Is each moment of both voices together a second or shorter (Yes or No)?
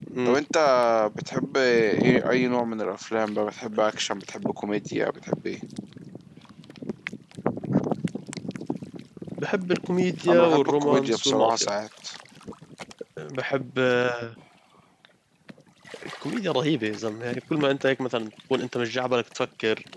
No